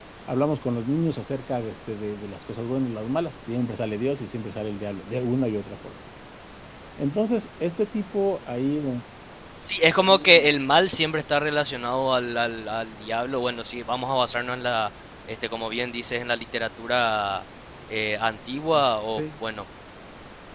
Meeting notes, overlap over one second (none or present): none